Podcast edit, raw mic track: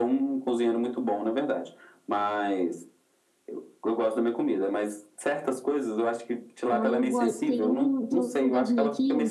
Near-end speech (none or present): present